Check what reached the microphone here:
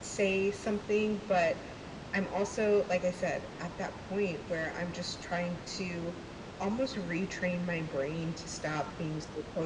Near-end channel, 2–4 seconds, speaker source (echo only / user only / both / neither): echo only